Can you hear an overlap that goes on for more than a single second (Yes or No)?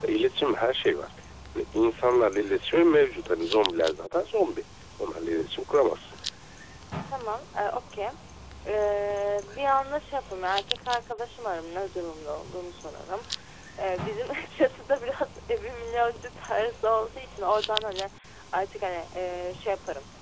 No